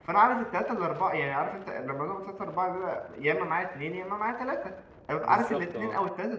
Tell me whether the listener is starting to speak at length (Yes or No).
No